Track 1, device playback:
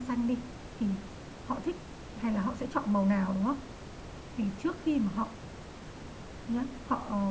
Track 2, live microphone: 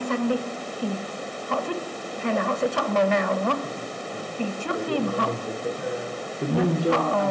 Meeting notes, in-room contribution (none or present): present